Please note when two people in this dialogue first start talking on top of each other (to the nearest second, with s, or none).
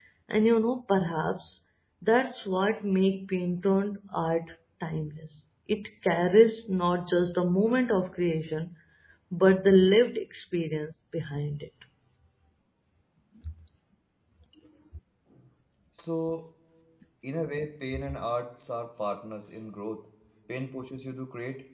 none